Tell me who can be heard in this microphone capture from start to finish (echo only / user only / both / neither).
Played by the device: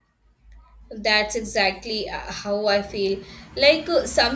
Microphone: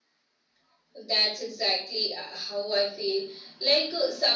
echo only